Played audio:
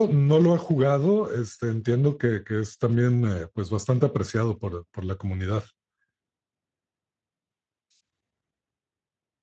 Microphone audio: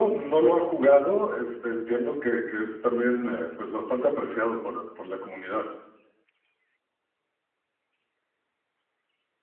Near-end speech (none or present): none